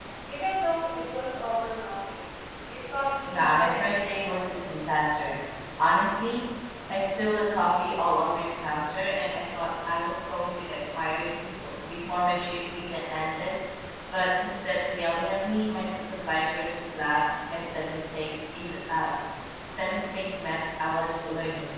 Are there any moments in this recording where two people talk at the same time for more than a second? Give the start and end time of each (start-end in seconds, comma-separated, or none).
3.3-4.6